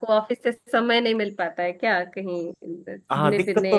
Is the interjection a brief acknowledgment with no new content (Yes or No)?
No